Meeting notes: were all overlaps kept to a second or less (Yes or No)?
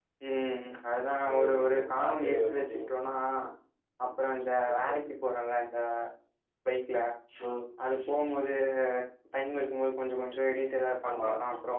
No